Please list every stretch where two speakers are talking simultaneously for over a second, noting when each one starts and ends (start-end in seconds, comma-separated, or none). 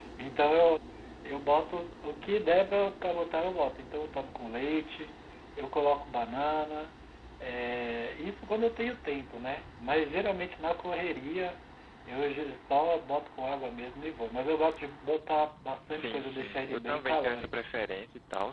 15.9-17.5